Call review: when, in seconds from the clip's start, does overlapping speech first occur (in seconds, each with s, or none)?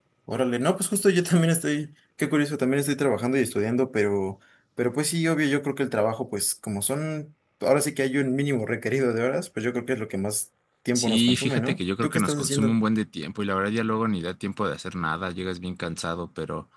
10.9 s